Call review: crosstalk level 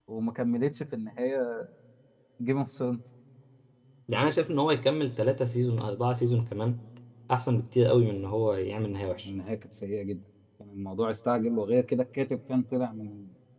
none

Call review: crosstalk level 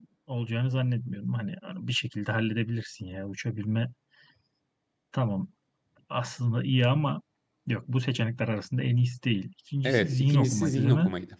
present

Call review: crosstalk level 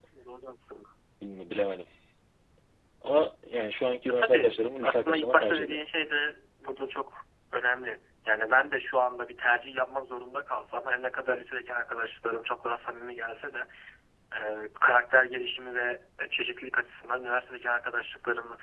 present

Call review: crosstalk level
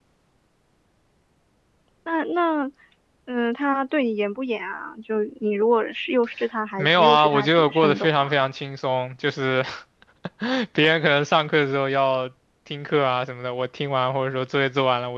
present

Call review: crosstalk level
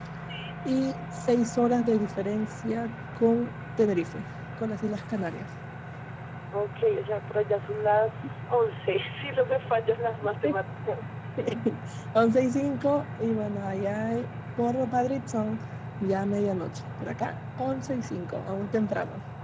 none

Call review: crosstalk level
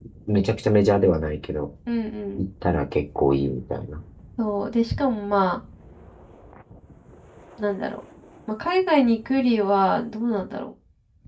none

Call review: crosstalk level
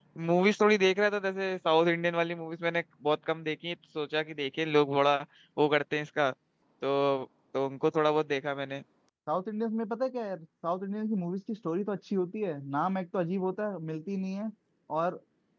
none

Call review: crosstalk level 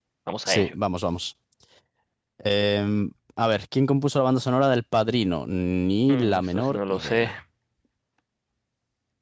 present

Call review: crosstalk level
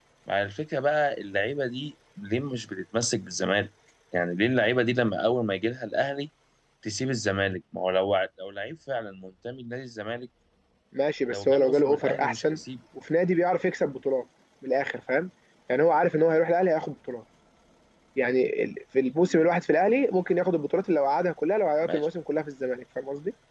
present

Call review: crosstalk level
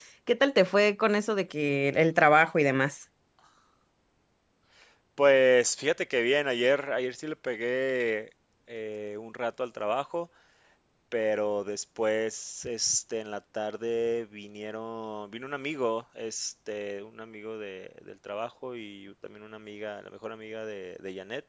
none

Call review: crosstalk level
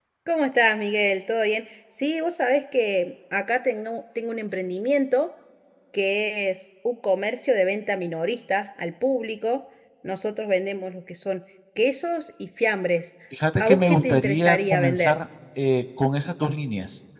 present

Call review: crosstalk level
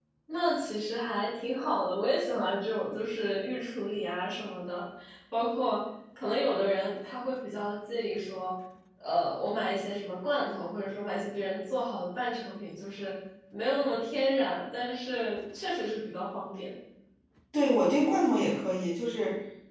none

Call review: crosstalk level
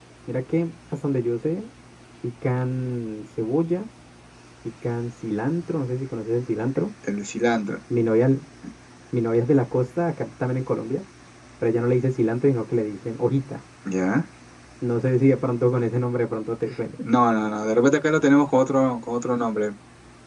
none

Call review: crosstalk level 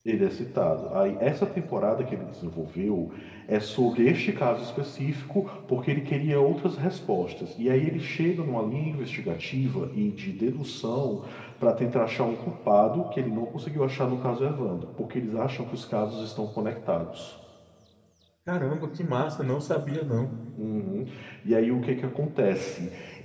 none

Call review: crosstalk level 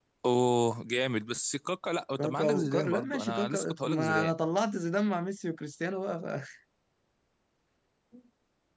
present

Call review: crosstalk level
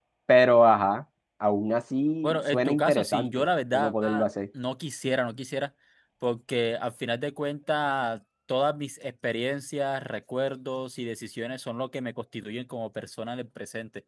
present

